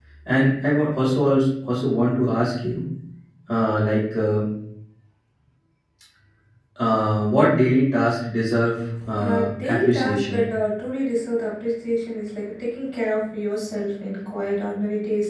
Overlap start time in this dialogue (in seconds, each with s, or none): 9.0 s